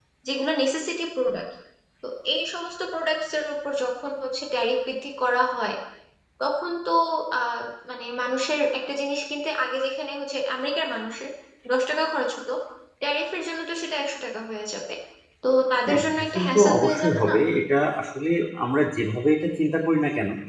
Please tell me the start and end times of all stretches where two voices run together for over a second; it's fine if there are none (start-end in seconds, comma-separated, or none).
15.9-17.3